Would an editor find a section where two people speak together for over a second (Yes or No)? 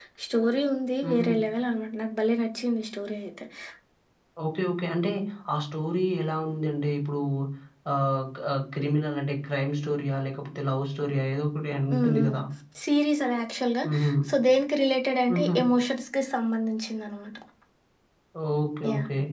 No